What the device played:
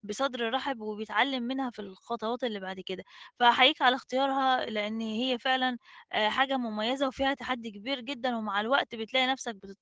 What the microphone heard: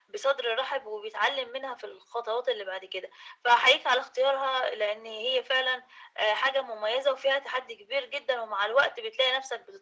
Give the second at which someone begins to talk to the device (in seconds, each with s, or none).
none